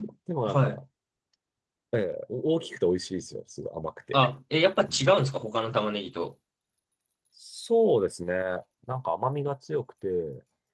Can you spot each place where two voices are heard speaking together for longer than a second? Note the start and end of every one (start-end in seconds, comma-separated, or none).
none